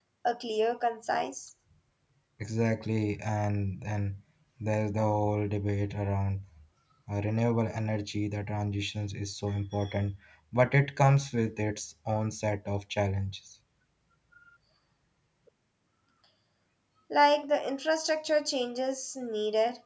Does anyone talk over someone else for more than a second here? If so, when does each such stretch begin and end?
none

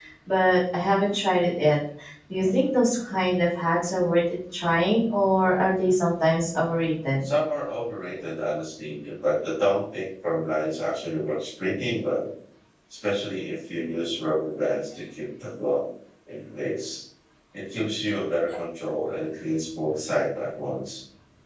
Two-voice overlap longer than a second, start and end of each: none

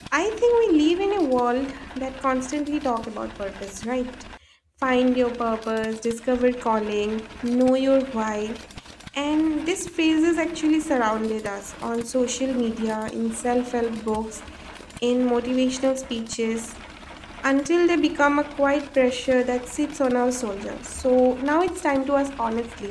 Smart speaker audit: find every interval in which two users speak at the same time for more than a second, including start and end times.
none

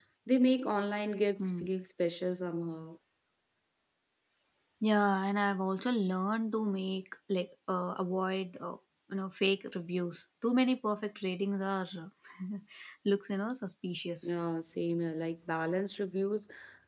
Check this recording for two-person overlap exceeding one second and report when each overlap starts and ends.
none

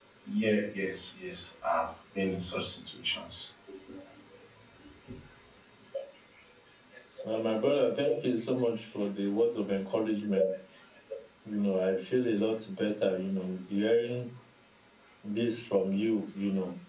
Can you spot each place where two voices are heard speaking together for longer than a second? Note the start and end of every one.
none

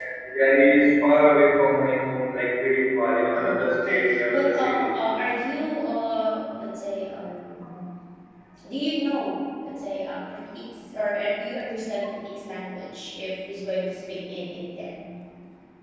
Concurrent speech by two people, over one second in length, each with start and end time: 3.3-4.9

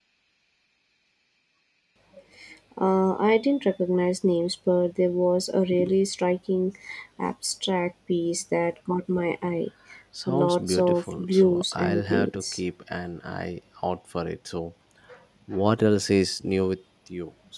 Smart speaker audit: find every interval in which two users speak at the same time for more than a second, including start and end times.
10.3-12.6

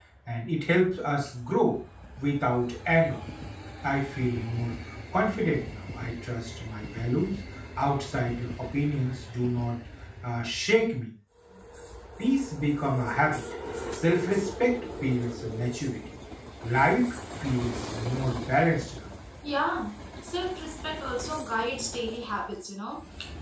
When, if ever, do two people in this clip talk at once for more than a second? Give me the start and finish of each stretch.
none

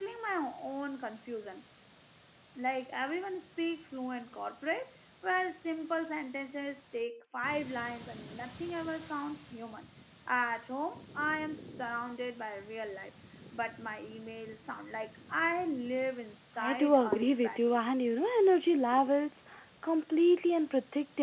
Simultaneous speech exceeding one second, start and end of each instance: 16.6-17.8

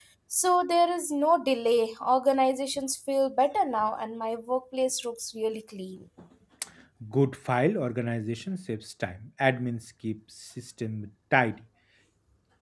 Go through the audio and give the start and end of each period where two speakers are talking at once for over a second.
none

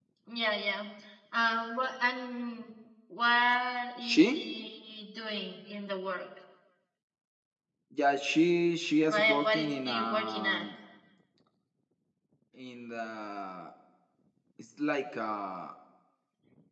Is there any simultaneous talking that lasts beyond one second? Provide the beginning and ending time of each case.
9.1-10.7

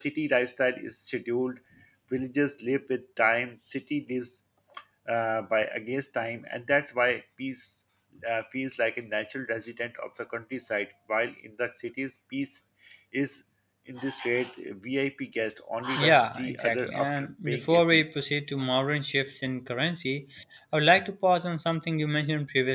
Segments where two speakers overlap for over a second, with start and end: 16.0-18.0

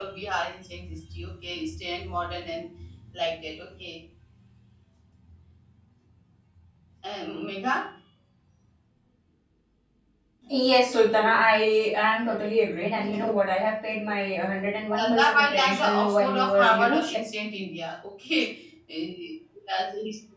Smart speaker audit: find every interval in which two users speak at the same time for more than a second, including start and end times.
15.0-17.2

